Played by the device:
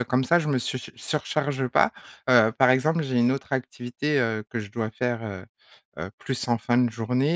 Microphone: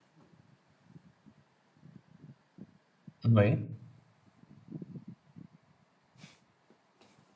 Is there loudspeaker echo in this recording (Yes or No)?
No